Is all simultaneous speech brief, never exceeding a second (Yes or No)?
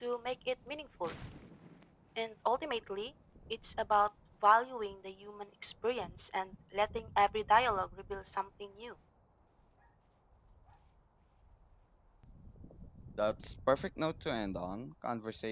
Yes